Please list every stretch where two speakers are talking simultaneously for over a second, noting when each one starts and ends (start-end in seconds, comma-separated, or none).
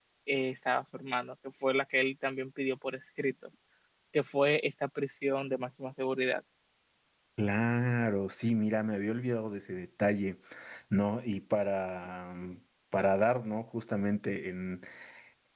none